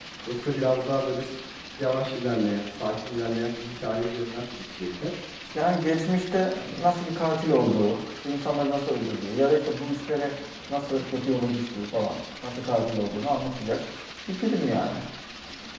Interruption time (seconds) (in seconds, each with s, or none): none